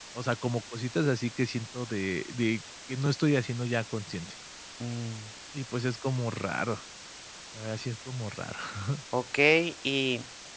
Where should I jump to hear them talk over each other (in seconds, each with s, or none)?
none